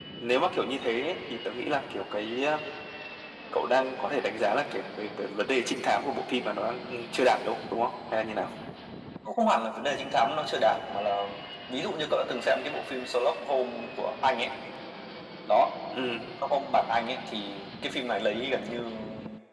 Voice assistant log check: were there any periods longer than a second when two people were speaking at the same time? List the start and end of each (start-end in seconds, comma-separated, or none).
none